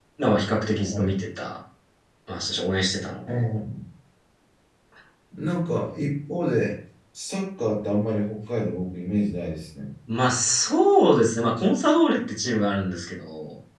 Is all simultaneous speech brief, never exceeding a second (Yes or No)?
Yes